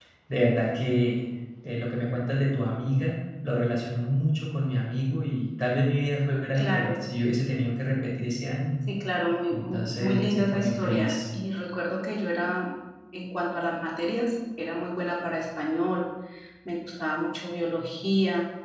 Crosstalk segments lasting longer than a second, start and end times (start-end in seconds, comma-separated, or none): 9.5-11.1